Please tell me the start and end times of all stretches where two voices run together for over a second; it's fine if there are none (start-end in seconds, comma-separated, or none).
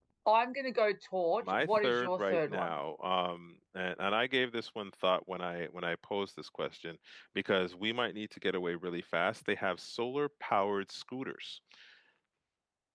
1.4-2.7